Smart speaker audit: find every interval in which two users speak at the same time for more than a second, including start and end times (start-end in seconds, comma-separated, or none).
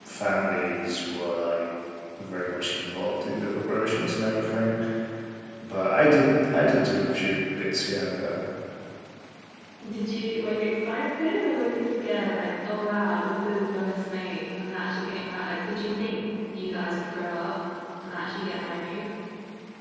none